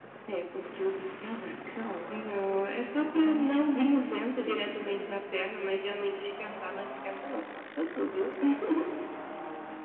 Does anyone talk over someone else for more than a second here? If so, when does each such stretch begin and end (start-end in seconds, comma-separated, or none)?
3.1-5.0